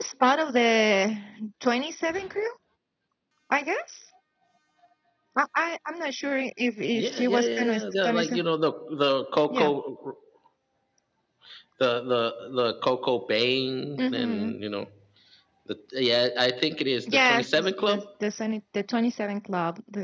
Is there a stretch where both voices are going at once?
Yes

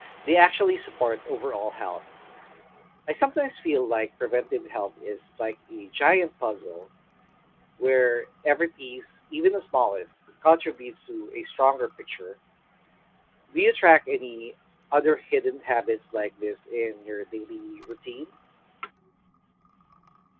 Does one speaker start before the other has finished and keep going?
No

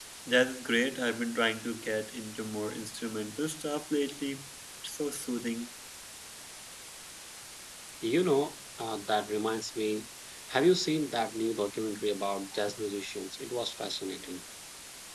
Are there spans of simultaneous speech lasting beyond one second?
No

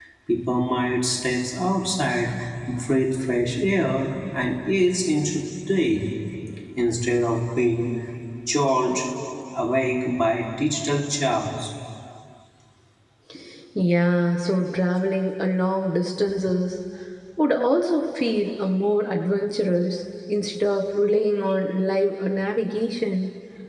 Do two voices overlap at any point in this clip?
No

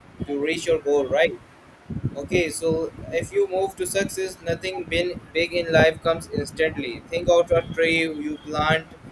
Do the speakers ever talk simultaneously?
No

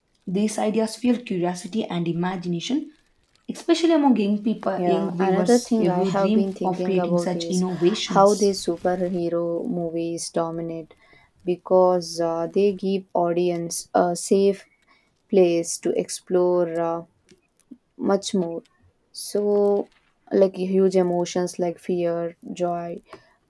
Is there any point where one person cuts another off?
Yes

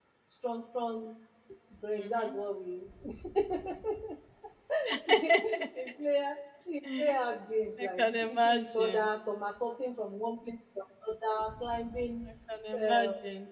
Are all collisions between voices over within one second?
No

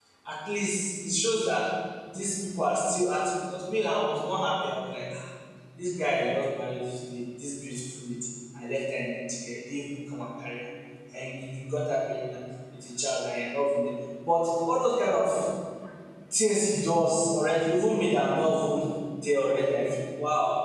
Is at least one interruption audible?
No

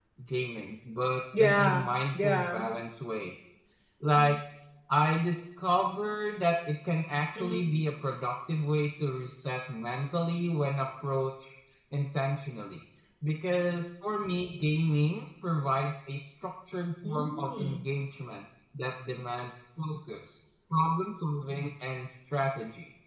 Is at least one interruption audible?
Yes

